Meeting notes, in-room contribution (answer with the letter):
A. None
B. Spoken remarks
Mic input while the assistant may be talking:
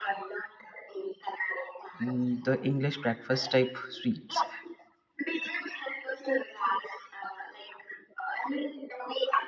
B